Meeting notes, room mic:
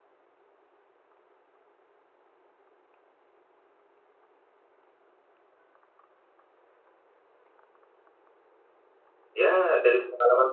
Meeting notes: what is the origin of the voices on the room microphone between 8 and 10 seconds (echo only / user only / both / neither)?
user only